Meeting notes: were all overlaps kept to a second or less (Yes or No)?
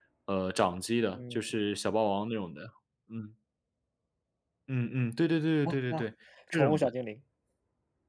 Yes